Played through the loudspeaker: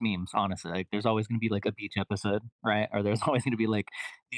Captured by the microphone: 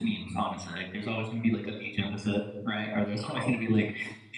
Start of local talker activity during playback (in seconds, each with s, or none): none